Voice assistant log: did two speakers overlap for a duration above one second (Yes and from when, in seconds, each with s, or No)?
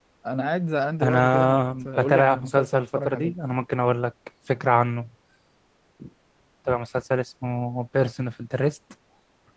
Yes, from 1.0 s